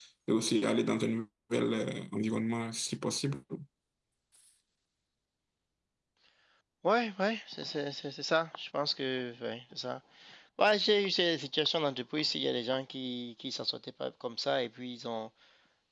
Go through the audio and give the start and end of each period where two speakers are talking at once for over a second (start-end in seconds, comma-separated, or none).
none